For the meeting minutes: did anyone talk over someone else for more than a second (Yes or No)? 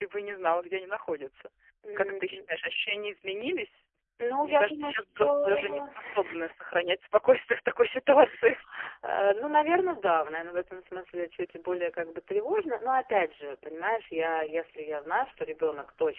Yes